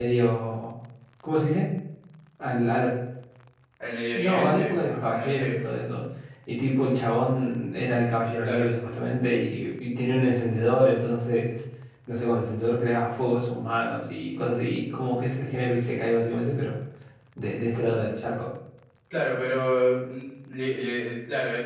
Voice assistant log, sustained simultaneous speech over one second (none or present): present